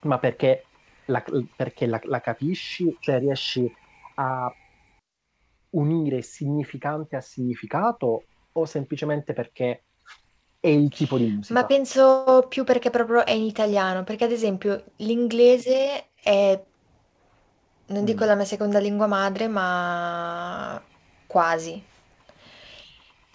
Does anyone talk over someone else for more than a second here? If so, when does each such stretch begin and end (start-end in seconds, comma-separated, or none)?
none